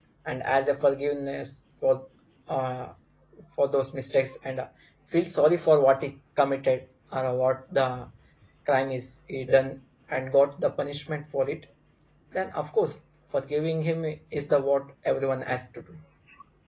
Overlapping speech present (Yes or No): No